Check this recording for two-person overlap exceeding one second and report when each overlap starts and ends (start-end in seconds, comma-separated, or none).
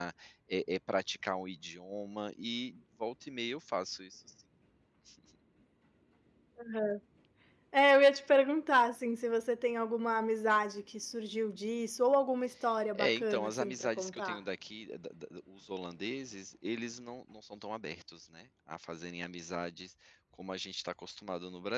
12.9-14.4